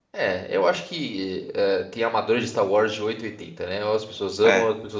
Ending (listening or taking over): listening